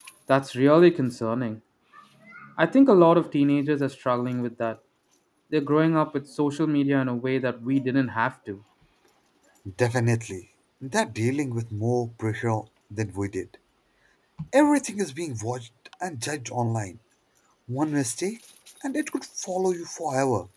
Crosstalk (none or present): none